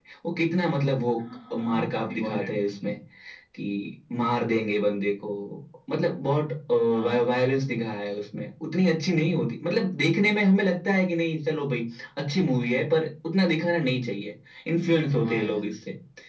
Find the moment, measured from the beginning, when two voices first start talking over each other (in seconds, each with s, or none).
1.6 s